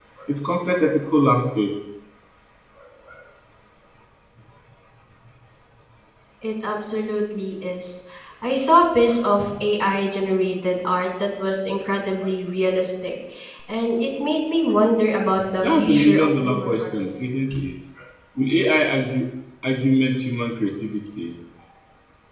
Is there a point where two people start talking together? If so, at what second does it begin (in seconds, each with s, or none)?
15.6 s